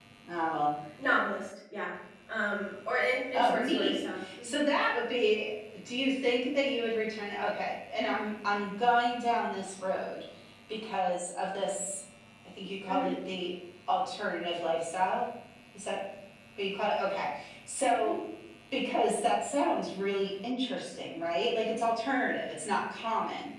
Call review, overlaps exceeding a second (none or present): present